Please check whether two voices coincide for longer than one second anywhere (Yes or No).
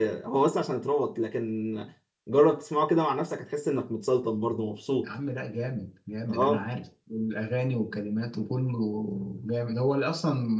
No